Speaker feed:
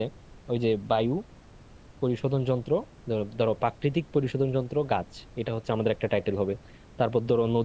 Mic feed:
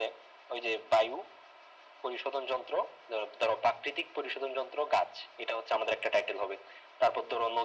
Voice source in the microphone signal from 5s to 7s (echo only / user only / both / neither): echo only